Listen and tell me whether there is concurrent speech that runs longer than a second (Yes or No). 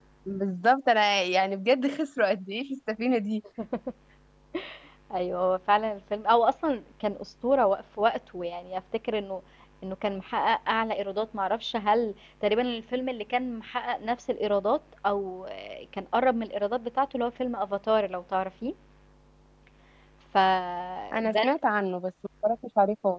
No